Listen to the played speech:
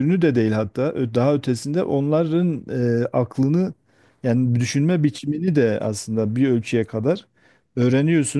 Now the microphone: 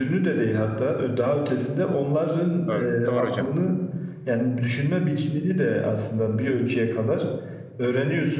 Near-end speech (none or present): present